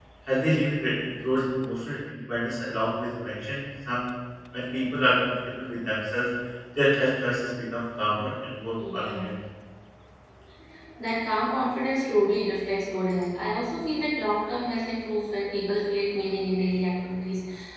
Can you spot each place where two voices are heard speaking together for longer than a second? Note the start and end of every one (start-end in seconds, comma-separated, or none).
none